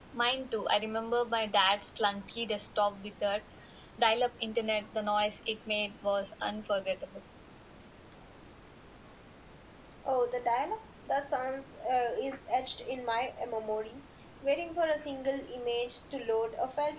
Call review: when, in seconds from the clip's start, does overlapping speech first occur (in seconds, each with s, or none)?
none